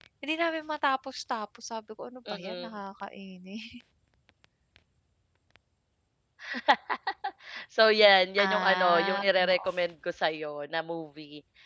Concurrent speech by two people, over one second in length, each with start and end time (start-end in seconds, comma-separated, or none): 8.4-9.7